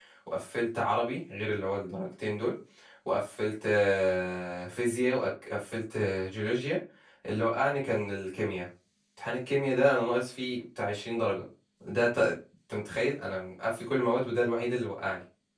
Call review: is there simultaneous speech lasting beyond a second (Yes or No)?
No